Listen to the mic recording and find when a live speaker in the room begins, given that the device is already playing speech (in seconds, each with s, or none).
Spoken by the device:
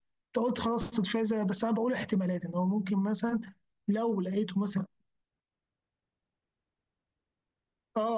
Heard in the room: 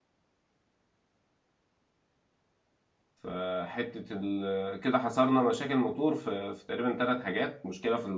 3.1 s